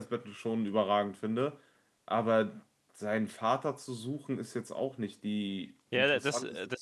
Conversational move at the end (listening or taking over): taking over